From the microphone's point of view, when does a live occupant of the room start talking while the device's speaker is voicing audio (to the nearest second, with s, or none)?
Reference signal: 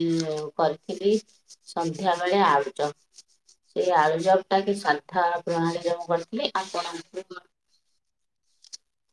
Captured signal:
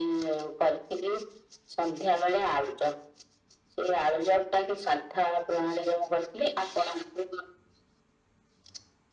none